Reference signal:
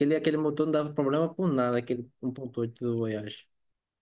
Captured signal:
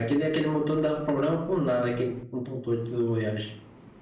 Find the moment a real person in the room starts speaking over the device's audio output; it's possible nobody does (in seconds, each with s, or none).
none